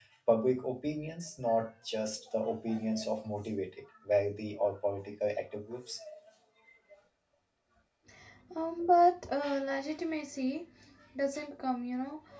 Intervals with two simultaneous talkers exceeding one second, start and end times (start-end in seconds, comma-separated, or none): none